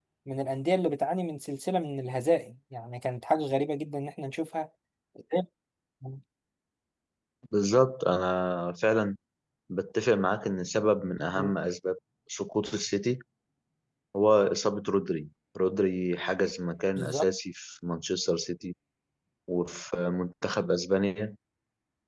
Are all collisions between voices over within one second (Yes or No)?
Yes